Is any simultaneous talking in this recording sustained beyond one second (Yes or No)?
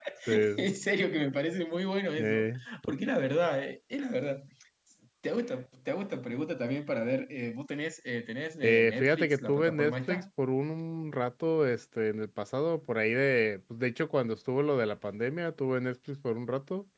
Yes